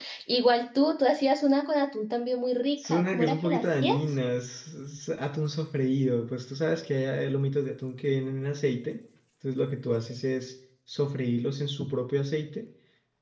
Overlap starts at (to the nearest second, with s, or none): 3 s